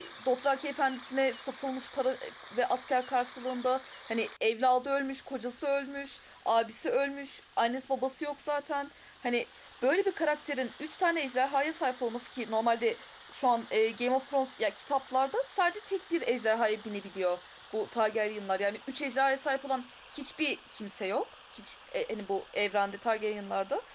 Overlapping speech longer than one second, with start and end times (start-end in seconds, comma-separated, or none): none